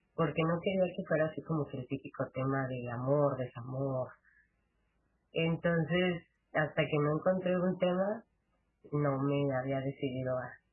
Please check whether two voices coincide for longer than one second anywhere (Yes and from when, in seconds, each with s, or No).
No